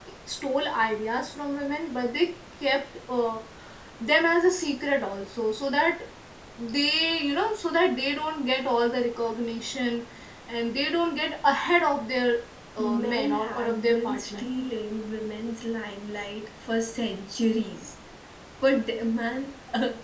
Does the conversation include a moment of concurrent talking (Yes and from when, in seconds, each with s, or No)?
Yes, from 12.8 s